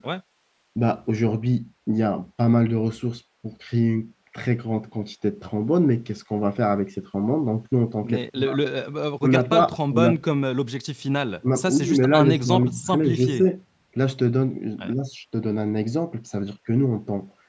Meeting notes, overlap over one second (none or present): present